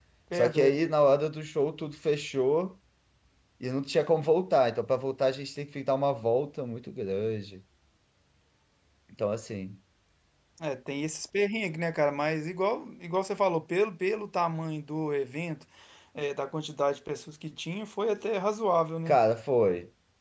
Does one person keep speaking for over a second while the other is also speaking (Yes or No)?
No